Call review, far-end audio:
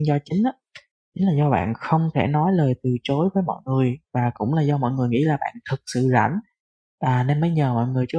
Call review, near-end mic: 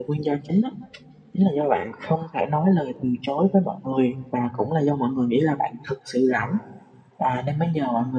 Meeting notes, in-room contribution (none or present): none